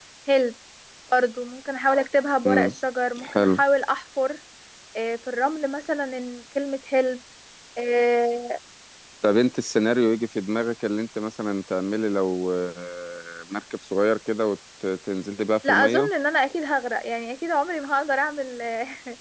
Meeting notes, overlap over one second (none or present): none